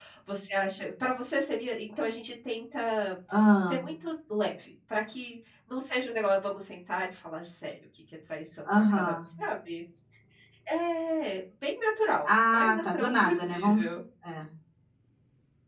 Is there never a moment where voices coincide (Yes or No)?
No